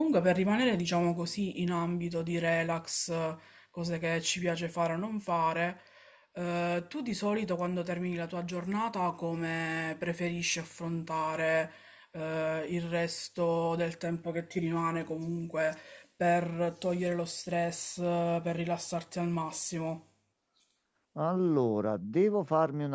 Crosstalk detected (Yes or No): No